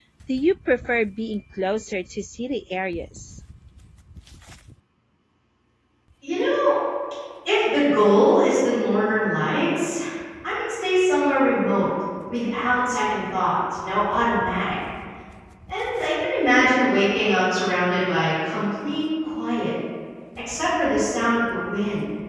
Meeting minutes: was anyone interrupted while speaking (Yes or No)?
No